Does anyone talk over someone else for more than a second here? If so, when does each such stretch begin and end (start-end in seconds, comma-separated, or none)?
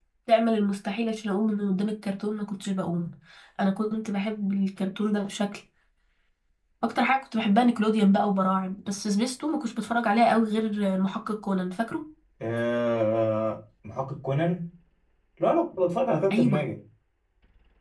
none